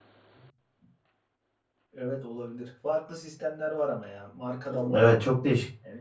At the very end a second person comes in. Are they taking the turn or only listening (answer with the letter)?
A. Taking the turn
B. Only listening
A